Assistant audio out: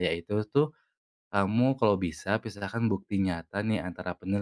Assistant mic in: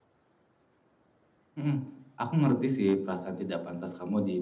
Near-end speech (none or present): present